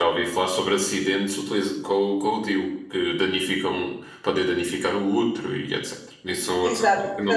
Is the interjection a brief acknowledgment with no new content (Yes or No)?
No